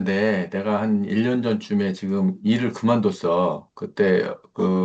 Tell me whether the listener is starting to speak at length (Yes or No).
No